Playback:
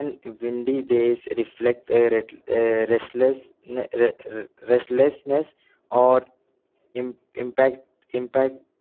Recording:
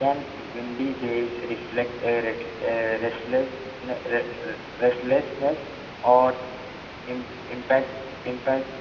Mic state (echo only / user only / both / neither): echo only